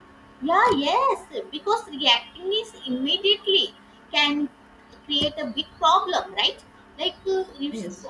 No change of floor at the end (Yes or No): Yes